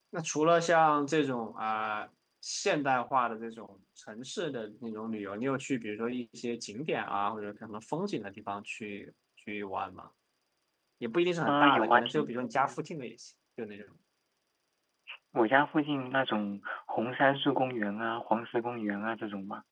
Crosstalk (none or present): present